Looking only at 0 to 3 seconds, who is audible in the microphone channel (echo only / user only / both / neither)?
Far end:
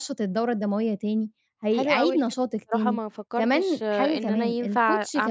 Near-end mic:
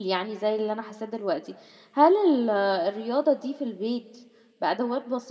user only